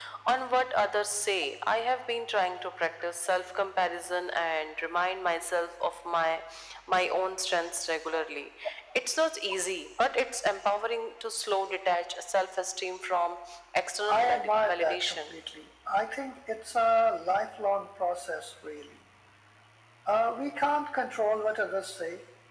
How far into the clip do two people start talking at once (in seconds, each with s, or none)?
14.1 s